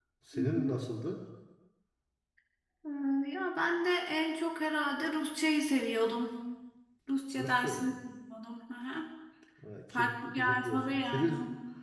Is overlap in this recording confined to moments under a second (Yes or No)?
No